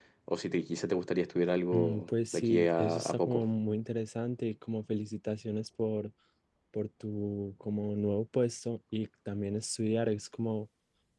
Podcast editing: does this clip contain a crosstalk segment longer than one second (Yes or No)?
Yes